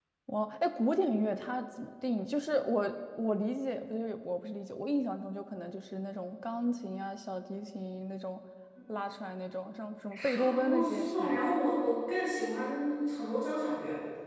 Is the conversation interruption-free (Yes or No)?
No